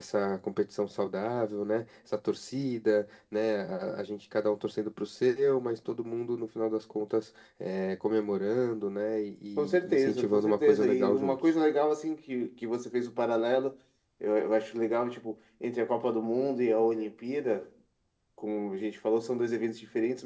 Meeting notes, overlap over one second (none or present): present